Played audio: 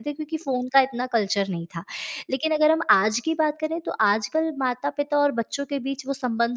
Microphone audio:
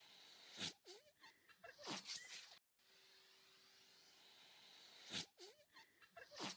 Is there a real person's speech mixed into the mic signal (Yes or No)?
No